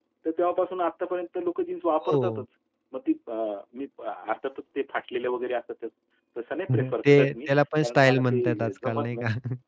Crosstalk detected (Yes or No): Yes